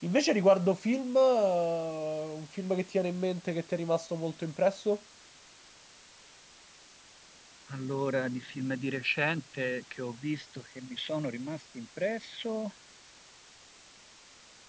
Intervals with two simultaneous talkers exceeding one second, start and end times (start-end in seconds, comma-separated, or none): none